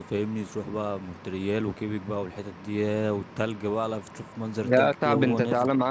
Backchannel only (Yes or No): No